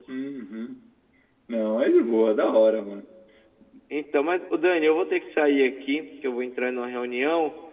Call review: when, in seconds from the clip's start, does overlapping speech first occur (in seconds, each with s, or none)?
none